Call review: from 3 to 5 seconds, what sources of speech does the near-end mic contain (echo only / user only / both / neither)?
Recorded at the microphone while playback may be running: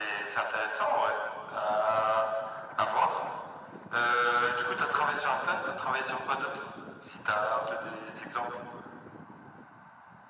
echo only